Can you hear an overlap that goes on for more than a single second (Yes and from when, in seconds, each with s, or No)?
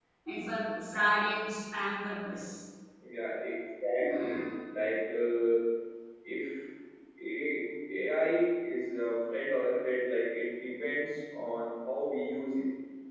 No